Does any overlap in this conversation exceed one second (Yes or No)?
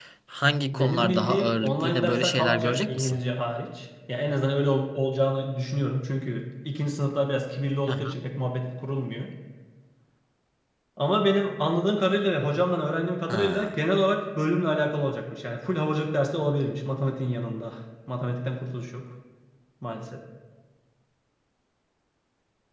Yes